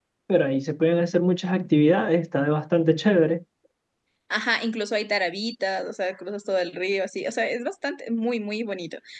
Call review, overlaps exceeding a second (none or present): none